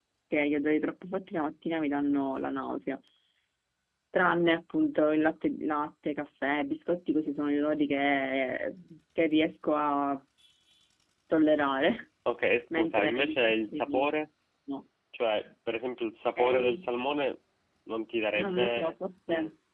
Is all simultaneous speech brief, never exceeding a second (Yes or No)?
No